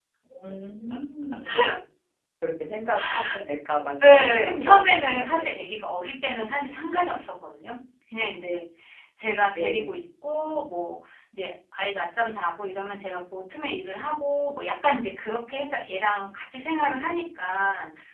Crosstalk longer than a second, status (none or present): present